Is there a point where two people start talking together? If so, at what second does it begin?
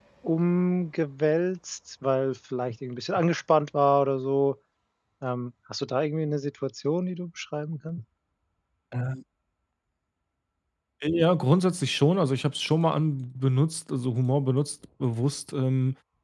none

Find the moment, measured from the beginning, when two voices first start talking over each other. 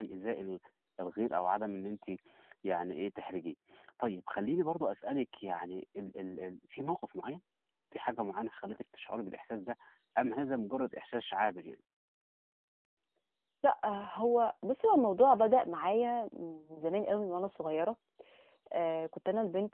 none

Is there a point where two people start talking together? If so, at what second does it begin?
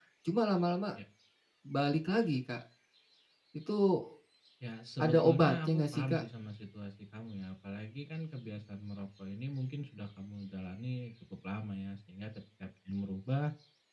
5.0 s

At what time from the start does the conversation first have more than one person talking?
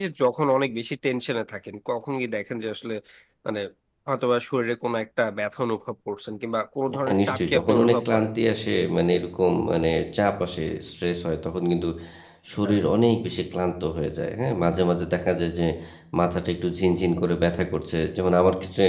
6.9 s

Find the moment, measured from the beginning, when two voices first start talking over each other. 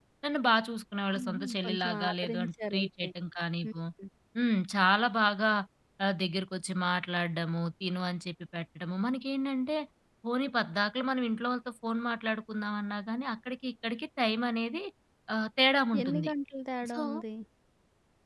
1.1 s

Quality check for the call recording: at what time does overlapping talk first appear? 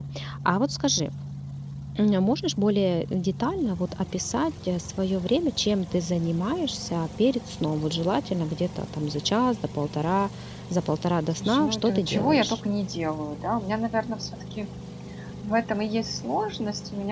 11.3 s

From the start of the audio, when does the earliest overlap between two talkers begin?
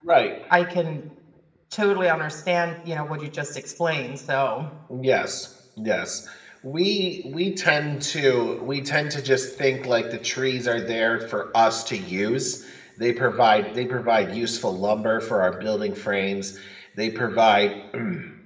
none

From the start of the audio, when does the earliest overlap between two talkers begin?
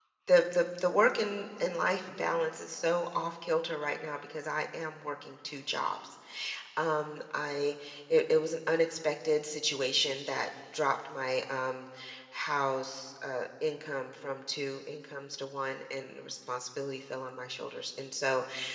none

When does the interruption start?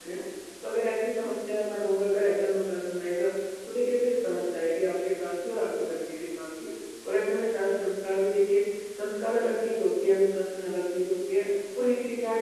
none

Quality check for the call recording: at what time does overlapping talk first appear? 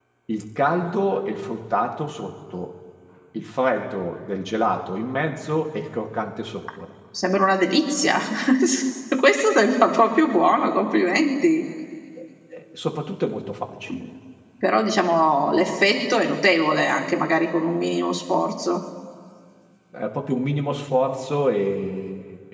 none

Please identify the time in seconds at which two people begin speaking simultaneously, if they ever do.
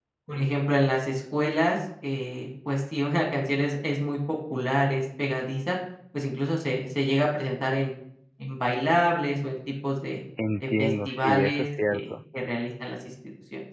10.4 s

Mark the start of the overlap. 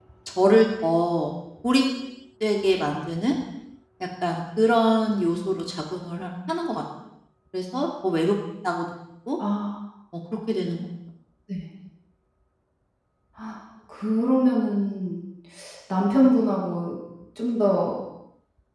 none

